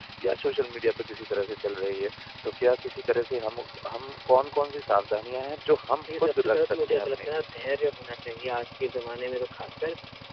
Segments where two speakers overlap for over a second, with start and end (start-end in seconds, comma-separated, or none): 6.1-7.4